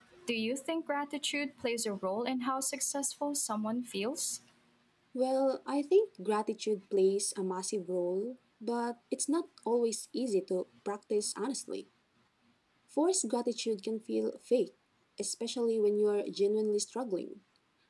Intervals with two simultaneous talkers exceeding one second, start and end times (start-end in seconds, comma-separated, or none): none